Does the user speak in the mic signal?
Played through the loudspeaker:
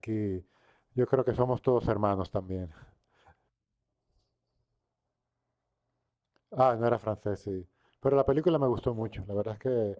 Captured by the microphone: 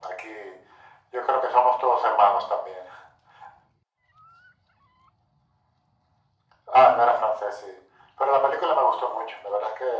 No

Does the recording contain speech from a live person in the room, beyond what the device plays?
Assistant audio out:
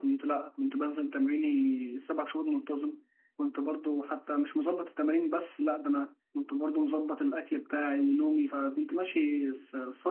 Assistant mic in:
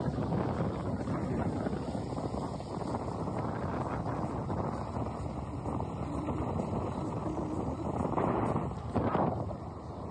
No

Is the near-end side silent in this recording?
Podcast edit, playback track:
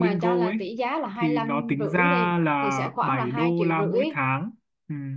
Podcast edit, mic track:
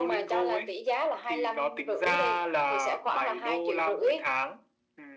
Yes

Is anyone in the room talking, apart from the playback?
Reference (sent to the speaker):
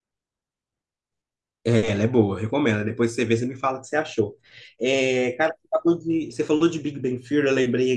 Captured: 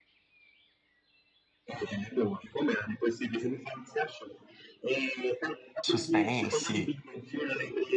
Yes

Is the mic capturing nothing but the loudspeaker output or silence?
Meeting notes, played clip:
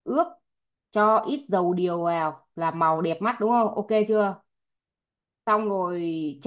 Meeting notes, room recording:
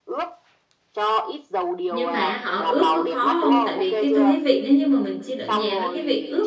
No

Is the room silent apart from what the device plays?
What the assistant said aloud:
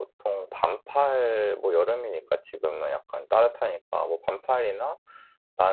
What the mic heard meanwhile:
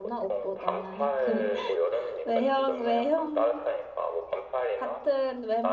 No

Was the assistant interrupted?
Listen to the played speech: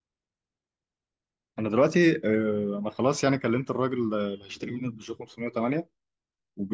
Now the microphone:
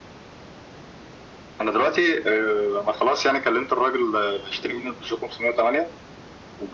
No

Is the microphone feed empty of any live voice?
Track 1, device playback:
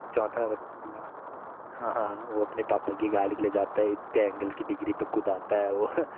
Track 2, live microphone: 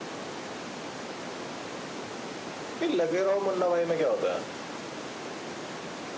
No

